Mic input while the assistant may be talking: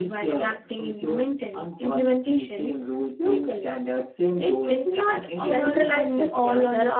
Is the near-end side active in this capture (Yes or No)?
Yes